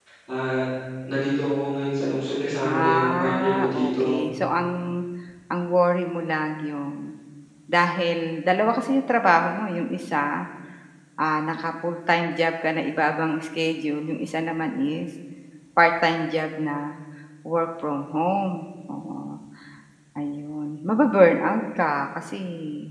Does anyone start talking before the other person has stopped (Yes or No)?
Yes